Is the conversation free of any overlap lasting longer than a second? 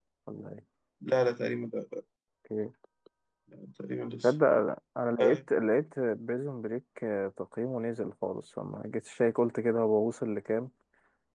Yes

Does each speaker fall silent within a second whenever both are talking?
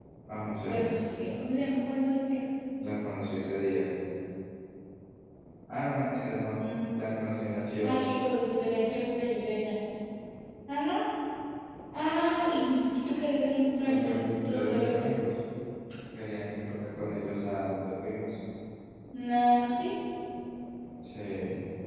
No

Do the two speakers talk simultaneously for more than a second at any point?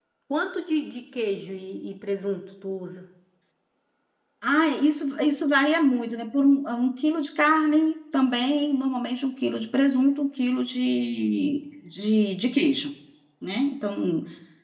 No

